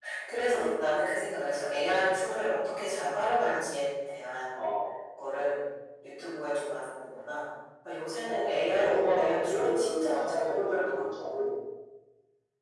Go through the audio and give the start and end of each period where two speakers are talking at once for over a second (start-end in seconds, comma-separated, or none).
8.2-11.5